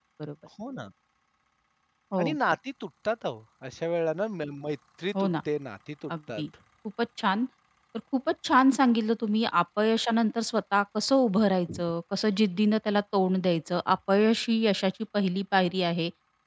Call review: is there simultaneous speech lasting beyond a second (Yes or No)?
No